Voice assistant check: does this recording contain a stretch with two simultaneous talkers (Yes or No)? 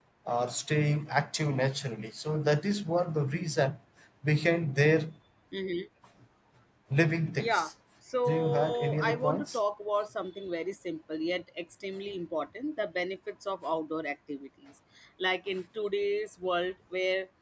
Yes